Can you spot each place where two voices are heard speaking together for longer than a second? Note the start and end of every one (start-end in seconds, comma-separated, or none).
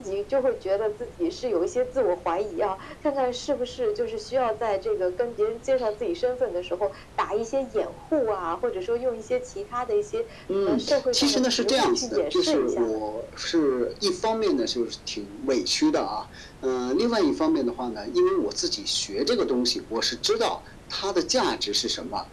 10.6-13.0